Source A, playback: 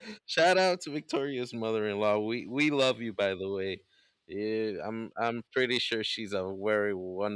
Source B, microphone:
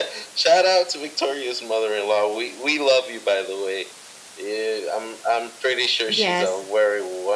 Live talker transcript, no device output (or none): Yes.